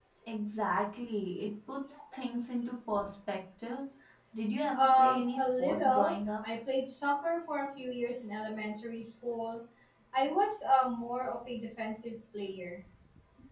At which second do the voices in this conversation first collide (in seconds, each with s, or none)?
4.7 s